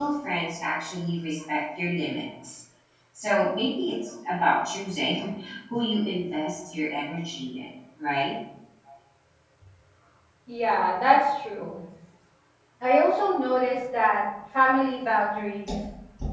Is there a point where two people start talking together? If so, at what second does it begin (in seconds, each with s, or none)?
none